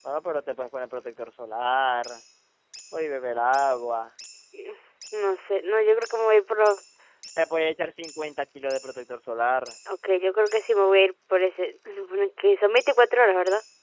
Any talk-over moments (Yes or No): No